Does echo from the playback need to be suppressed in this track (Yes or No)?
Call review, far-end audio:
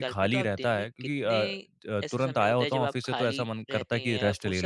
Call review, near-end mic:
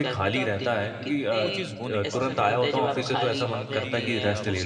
Yes